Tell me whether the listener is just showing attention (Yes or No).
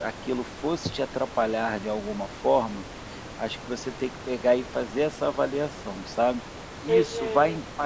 Yes